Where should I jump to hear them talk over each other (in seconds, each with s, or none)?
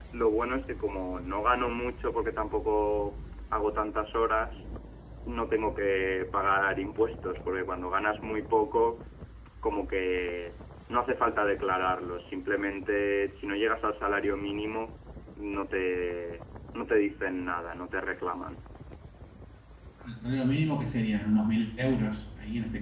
none